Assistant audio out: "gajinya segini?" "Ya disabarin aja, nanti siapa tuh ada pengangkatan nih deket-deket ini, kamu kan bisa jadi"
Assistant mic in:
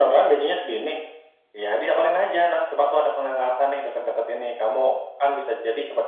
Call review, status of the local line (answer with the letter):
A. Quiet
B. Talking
A